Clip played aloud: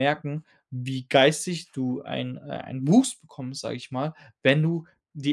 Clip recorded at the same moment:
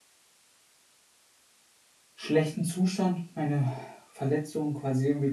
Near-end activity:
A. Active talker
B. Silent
A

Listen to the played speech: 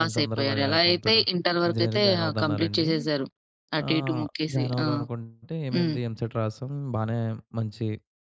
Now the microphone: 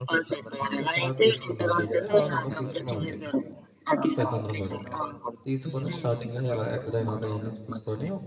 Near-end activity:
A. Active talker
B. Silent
A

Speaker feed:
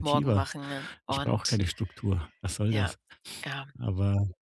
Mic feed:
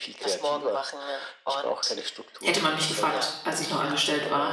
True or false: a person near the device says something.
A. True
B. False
A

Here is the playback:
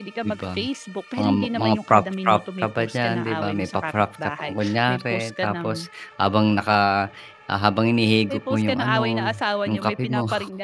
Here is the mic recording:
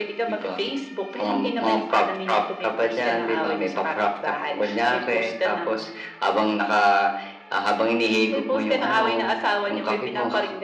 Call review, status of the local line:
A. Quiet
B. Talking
A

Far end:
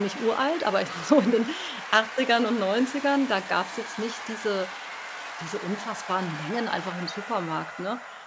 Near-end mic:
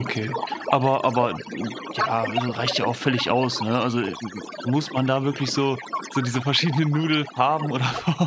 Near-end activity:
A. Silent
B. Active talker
B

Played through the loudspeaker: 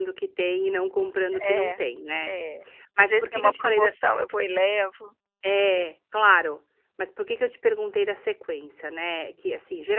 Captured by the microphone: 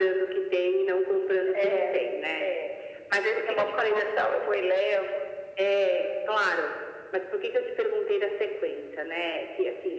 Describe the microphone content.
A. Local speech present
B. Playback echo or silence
B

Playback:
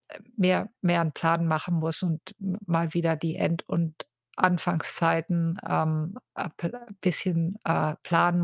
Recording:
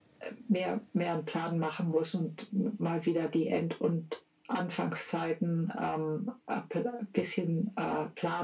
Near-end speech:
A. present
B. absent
B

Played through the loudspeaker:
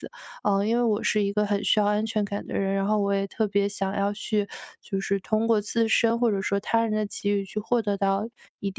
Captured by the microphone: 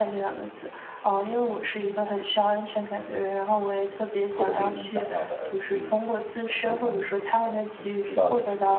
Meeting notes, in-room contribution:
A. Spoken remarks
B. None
A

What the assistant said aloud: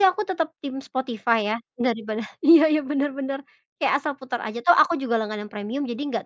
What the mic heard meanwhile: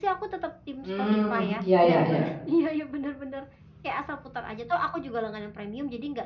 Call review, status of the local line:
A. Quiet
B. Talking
B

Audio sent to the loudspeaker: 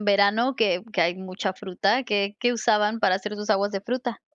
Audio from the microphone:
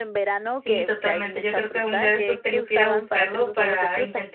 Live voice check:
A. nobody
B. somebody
B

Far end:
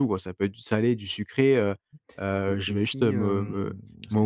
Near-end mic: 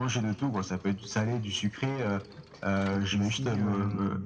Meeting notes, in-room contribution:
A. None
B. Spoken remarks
A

